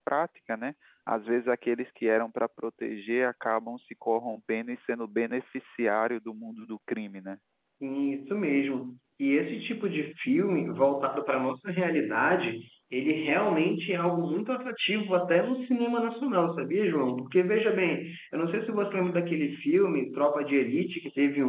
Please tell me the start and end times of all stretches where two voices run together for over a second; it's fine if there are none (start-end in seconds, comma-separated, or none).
none